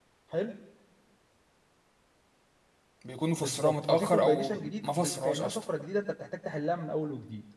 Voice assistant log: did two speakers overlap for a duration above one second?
Yes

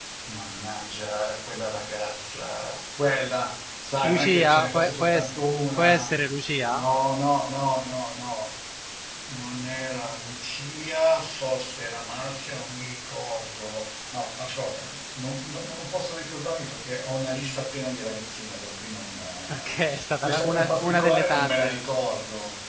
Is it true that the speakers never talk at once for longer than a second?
No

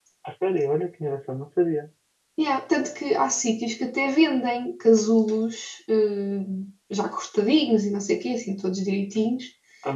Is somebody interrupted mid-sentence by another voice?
No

